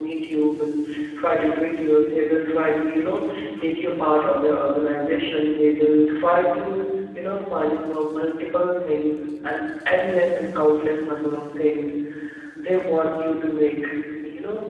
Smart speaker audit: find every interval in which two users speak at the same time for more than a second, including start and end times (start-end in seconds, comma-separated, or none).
none